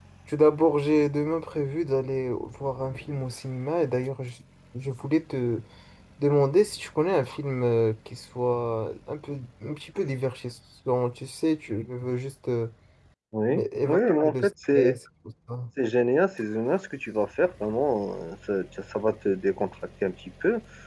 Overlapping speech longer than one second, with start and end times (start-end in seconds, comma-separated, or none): 13.5-15.0